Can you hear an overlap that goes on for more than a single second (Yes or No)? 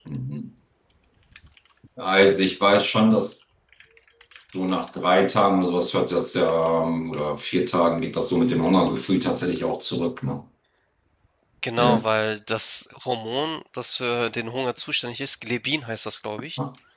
No